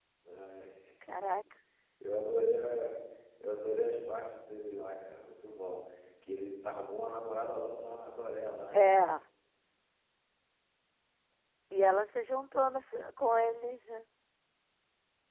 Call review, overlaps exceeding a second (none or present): none